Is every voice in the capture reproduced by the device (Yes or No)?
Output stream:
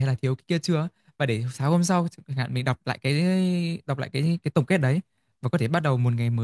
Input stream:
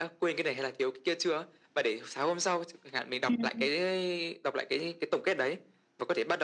No